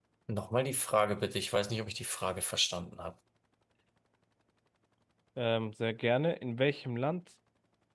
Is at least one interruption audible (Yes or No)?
No